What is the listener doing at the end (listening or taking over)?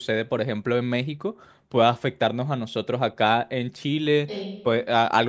listening